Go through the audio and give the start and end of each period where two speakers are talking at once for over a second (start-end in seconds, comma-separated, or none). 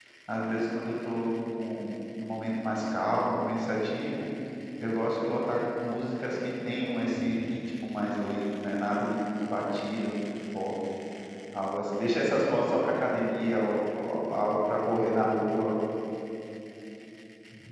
none